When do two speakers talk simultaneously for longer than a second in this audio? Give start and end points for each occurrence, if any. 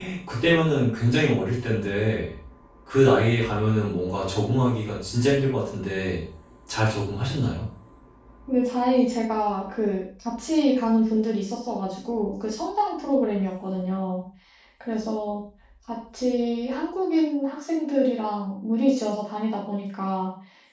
none

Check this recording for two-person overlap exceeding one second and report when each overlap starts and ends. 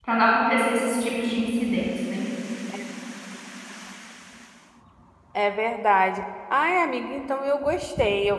none

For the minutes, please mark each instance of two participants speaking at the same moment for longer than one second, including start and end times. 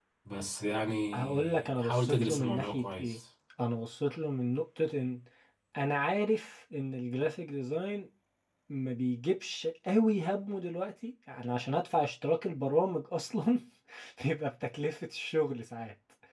1.1-3.2

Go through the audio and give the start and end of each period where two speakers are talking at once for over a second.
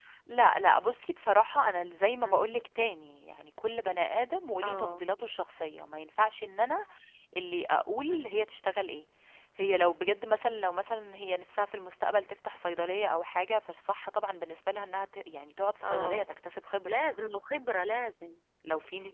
none

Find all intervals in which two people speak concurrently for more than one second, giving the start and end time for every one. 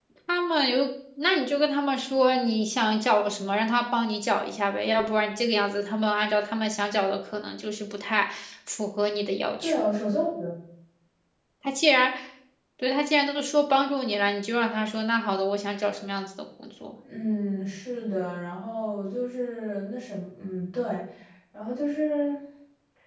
none

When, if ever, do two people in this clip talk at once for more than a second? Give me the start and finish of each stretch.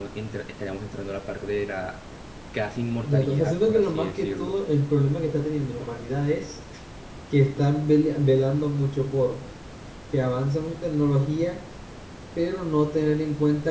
3.0-4.5

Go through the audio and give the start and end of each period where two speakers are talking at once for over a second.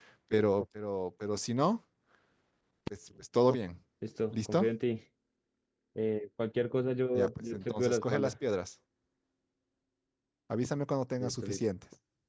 7.1-8.3

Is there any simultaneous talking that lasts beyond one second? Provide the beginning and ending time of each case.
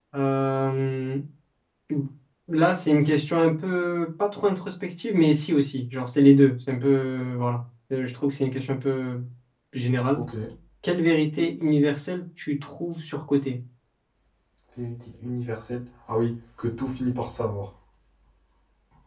none

